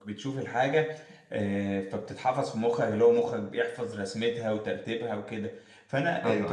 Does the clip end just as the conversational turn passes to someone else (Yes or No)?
No